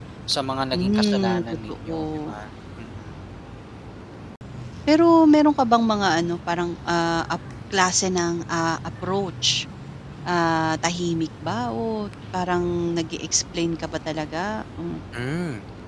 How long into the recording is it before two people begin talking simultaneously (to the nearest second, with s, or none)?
1 s